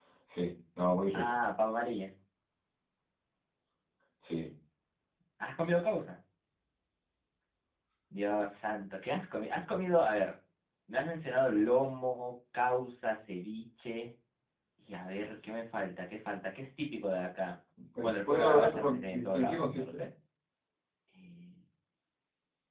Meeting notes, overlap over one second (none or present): present